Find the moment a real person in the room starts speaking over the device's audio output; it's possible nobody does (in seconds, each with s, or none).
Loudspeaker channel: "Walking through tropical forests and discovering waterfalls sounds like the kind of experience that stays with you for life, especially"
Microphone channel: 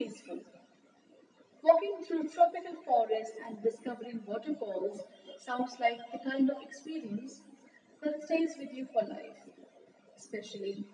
none